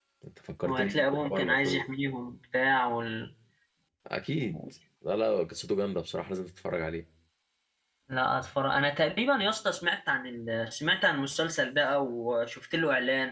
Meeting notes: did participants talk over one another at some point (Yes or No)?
Yes